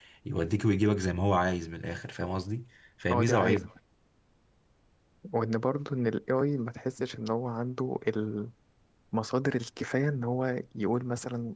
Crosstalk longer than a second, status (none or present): none